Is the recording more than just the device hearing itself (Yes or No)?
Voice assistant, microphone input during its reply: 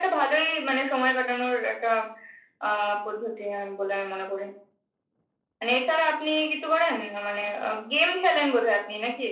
No